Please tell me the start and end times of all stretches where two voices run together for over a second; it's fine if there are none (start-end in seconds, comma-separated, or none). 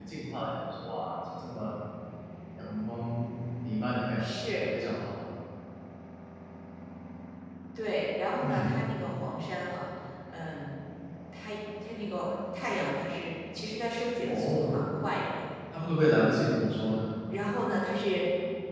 none